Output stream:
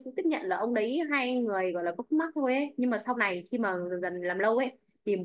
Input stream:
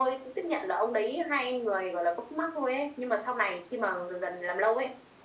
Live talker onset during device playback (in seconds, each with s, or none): none